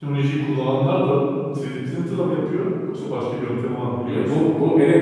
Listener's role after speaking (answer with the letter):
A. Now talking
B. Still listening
A